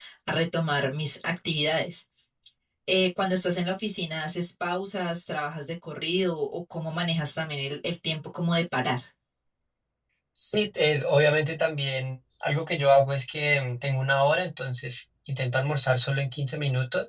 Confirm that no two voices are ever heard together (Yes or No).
Yes